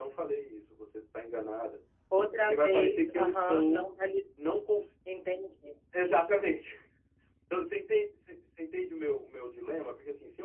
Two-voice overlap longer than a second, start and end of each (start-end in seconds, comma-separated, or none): 2.4-3.8